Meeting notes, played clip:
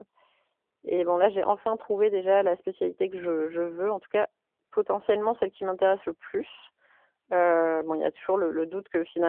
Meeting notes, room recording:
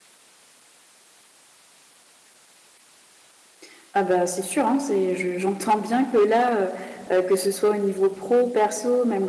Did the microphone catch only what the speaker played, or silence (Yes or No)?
No